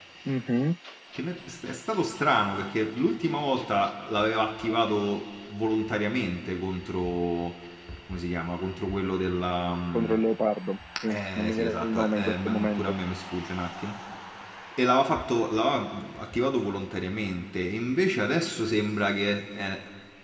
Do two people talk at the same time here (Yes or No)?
Yes